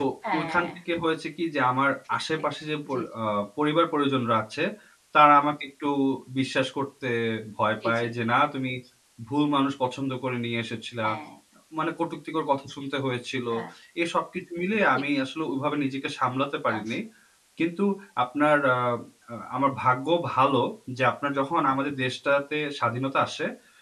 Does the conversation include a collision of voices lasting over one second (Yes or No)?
No